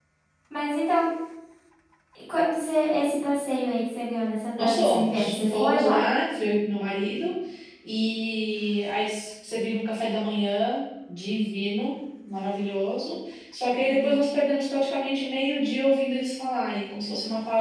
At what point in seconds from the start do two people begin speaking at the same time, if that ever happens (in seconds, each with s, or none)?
4.6 s